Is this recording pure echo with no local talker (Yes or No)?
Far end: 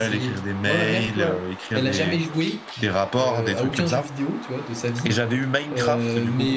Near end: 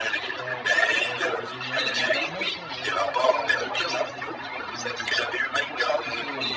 No